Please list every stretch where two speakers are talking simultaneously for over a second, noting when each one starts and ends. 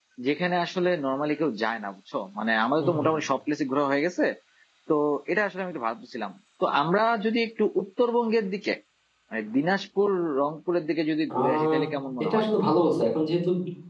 none

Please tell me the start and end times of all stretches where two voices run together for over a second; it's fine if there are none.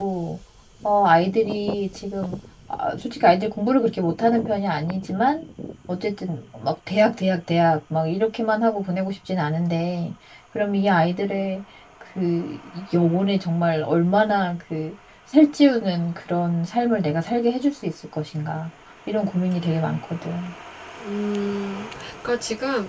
none

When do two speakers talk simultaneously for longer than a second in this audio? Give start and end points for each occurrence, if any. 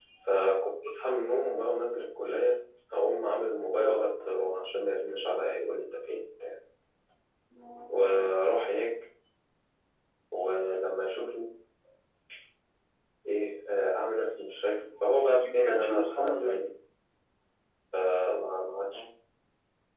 15.2-16.7

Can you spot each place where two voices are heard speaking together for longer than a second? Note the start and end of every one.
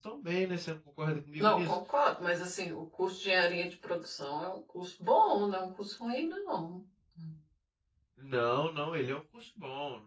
none

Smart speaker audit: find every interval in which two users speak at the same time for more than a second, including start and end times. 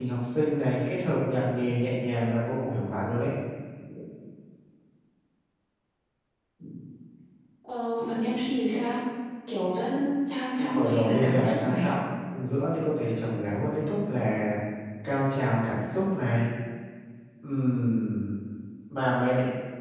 10.6-11.9

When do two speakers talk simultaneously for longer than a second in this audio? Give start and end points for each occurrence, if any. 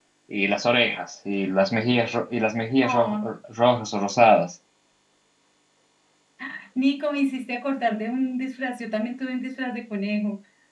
none

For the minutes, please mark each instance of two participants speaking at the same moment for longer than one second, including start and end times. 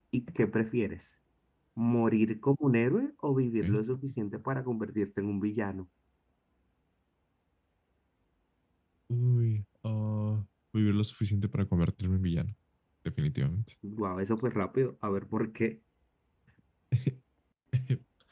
none

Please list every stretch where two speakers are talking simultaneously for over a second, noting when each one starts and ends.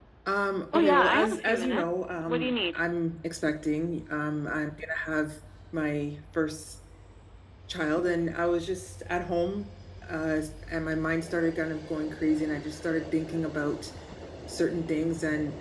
0.7-2.8

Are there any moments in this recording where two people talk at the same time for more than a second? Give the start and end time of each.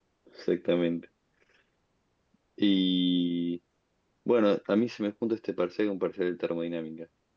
none

